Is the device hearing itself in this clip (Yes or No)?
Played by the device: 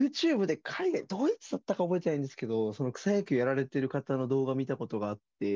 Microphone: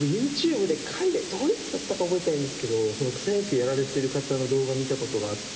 Yes